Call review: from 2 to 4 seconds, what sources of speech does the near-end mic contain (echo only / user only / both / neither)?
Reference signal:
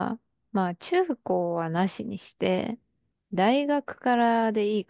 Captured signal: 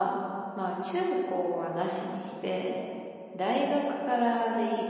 echo only